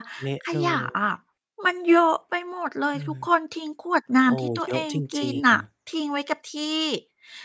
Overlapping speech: Yes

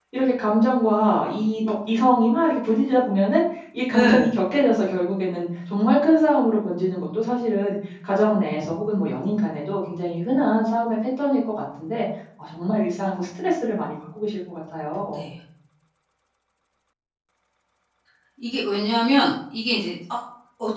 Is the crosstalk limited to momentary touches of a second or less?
Yes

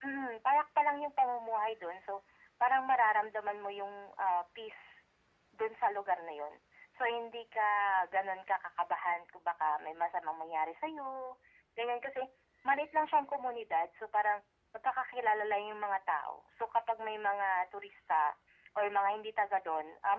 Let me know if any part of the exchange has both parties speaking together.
No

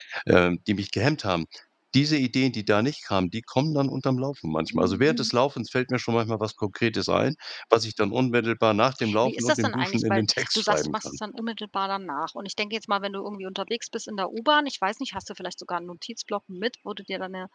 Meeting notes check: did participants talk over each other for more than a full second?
Yes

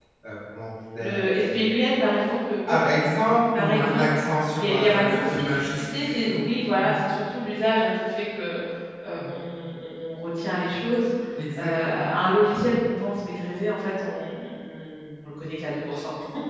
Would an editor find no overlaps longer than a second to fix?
No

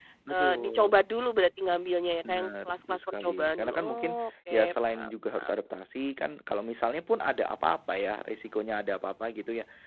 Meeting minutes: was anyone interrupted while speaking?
Yes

